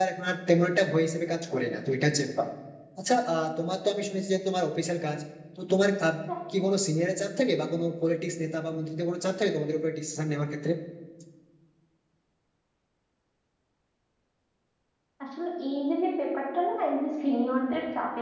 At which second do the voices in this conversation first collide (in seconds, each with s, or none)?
none